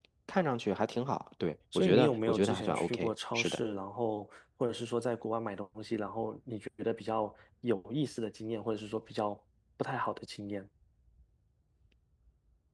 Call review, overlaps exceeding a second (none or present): present